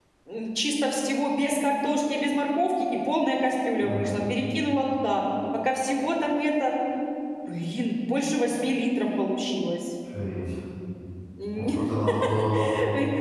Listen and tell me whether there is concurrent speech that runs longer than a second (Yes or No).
No